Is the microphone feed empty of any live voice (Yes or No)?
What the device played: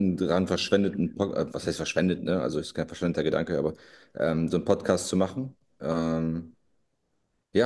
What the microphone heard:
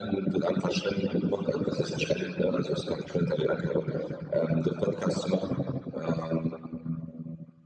Yes